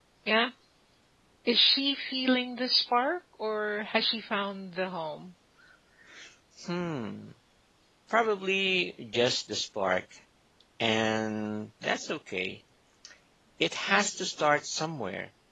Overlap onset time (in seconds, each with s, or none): none